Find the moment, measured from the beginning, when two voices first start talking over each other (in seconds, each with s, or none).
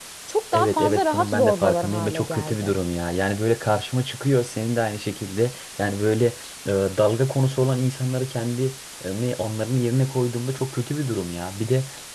0.5 s